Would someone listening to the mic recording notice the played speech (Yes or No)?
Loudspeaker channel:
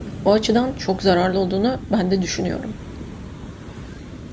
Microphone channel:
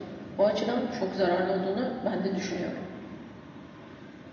Yes